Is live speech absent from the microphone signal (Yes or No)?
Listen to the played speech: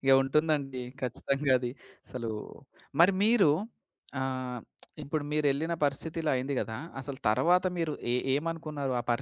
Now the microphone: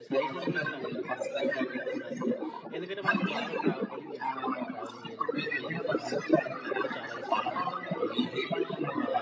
No